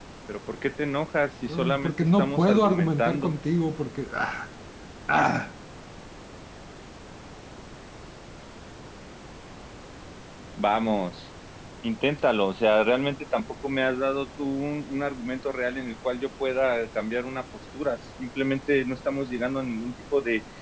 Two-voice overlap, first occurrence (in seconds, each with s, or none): 1.4 s